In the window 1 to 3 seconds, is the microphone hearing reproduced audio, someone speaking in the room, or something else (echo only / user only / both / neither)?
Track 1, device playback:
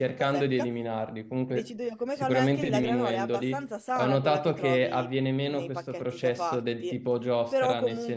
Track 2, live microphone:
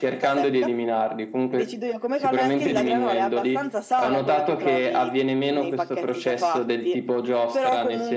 echo only